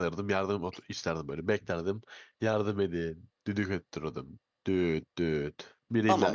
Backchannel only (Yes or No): No